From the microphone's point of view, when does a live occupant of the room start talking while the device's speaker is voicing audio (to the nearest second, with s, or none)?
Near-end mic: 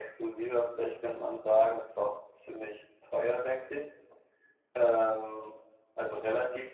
none